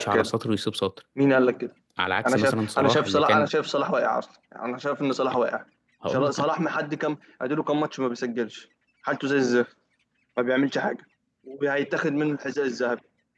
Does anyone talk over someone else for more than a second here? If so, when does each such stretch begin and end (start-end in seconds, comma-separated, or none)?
2.3-3.5